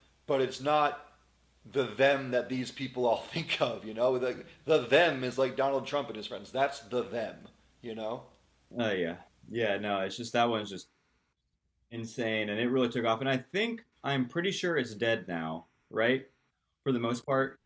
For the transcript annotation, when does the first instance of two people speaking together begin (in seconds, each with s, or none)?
none